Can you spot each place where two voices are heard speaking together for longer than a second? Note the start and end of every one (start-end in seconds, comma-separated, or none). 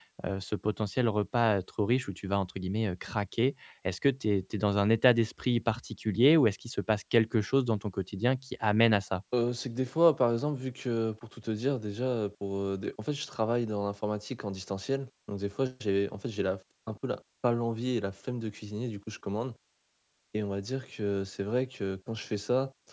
none